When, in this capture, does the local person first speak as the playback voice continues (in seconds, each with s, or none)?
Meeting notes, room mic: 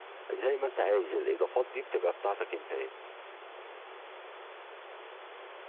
0.3 s